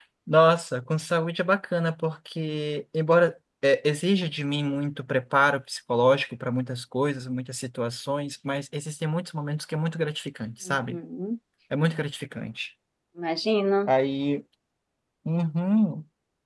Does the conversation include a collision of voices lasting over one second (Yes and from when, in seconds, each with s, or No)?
No